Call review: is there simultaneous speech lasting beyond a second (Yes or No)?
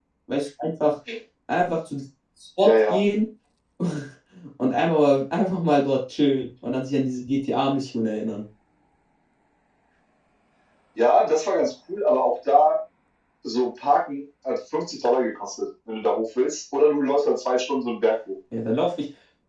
No